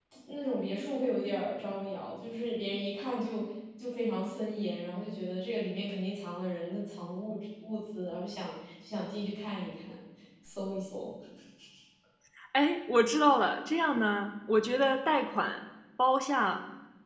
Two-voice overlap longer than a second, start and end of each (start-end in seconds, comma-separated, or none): none